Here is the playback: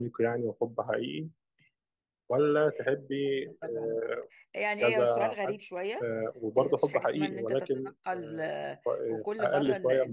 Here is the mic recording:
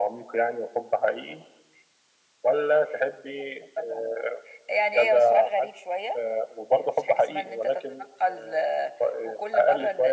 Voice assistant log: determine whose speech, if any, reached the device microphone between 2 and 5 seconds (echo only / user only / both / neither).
echo only